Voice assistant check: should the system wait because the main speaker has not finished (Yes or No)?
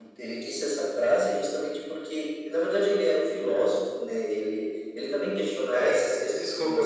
No